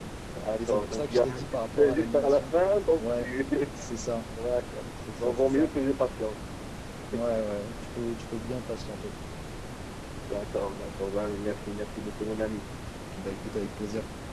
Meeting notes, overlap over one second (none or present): present